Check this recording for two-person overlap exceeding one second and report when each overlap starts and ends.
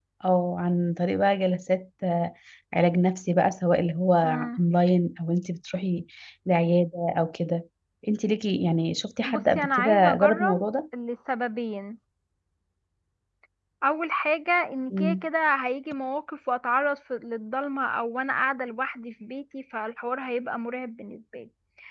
9.3-10.6

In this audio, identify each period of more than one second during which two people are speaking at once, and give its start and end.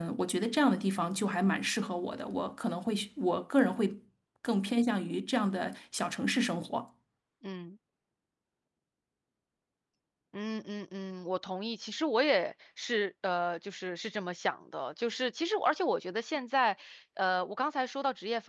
none

